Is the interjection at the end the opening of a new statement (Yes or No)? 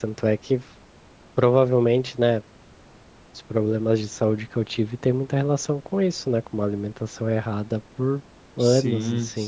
Yes